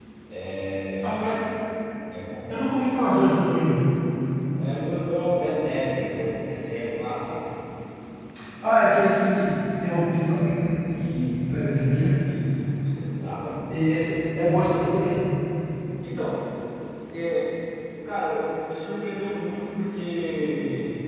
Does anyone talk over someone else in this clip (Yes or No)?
No